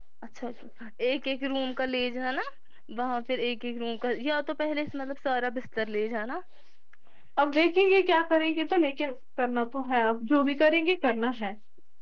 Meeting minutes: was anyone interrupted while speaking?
No

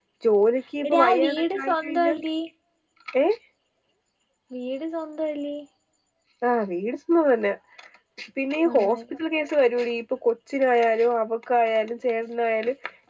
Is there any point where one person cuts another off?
Yes, from 0.9 s

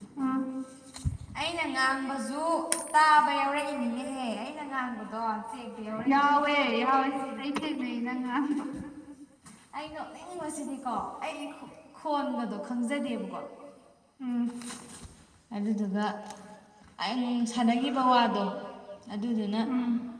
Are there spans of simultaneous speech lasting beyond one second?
Yes, from 6.1 s

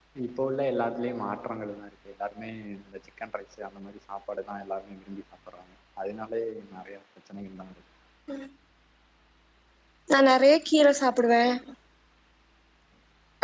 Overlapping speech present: No

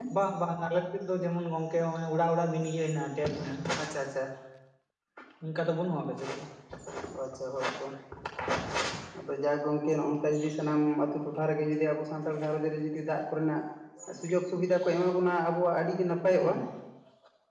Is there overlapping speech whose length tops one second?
No

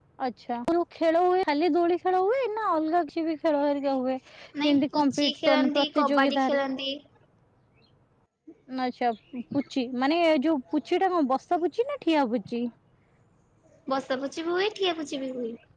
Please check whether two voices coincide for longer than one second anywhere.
Yes, from 4.5 s

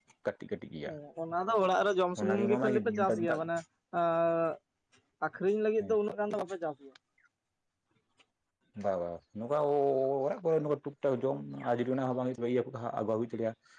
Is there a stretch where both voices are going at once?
Yes, from 2.2 s

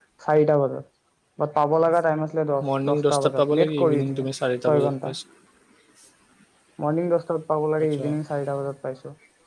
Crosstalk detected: Yes, from 2.9 s

